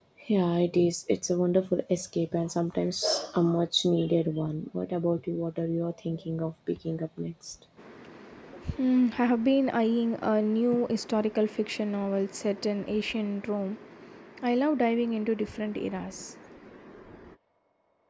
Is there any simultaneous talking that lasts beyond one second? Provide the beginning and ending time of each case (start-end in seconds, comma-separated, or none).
none